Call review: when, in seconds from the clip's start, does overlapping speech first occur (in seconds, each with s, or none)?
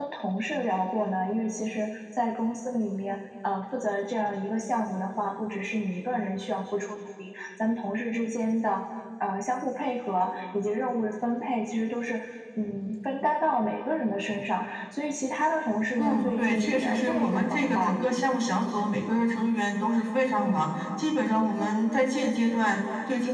16.0 s